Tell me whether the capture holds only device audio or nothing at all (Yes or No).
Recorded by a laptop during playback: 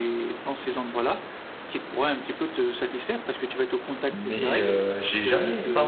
No